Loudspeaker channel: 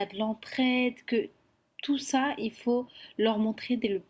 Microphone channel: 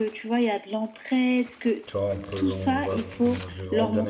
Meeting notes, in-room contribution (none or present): present